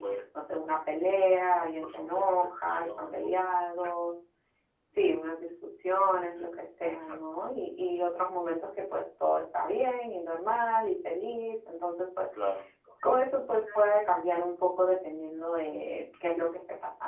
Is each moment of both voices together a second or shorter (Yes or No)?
No